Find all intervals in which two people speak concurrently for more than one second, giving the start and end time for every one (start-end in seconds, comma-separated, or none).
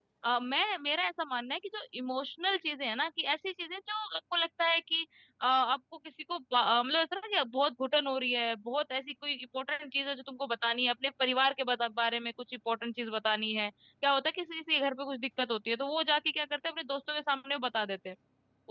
none